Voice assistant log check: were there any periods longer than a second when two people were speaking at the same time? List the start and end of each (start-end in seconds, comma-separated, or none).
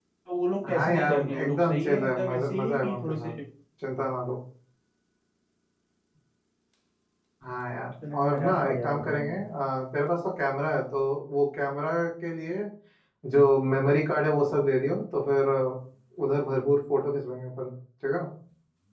0.7-3.3, 8.1-9.3